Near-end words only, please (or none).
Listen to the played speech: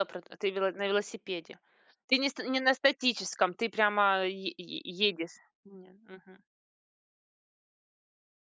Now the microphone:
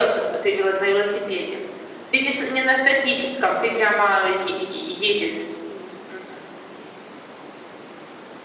none